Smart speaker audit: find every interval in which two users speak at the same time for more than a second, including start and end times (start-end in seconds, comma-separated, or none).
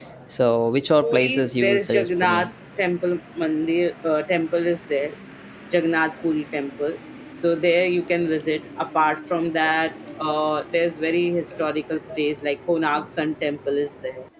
1.0-2.5